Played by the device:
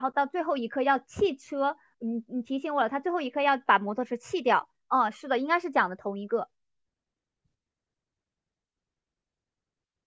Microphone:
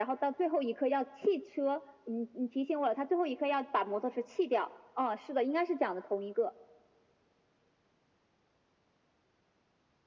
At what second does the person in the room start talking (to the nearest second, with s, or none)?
none